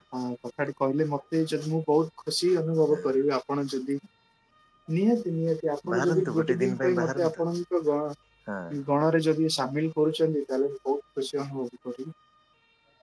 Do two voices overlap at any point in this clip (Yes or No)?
Yes